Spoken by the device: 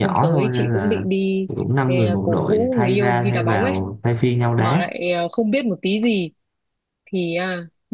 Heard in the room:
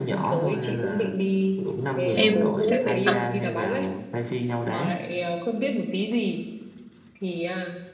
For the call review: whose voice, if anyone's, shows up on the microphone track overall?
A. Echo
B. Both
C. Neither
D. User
B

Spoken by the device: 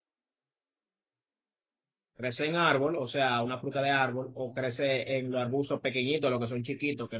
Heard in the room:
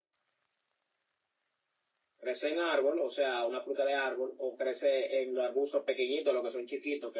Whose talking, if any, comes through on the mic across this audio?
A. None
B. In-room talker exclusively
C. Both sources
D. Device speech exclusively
D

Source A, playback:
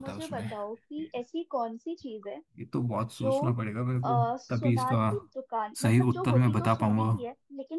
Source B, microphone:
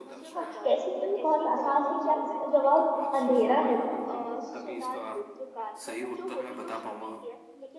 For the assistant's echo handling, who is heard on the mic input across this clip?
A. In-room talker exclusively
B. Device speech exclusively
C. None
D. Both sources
D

